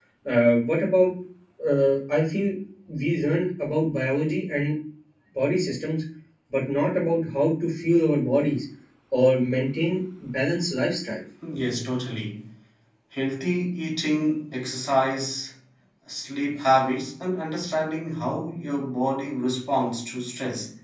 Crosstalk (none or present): none